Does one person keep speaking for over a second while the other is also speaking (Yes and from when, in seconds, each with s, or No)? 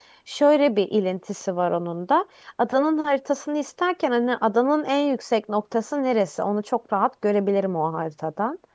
No